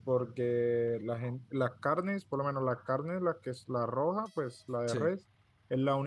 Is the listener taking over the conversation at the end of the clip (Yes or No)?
No